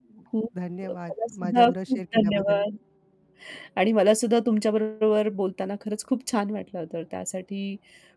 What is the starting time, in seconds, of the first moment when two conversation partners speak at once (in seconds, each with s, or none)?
0.9 s